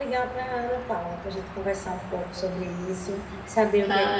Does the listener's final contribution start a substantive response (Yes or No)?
No